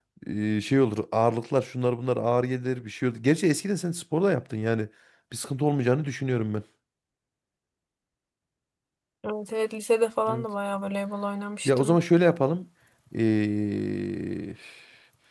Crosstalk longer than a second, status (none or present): none